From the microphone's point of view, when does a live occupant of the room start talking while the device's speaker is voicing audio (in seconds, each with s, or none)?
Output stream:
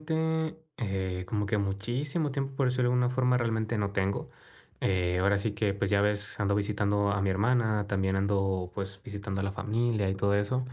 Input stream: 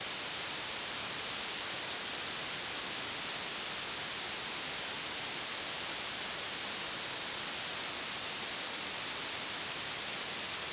none